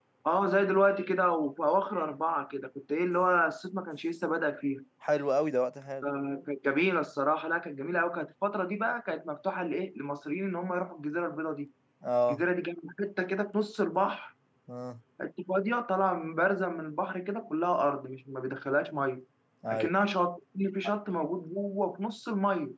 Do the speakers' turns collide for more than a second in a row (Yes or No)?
No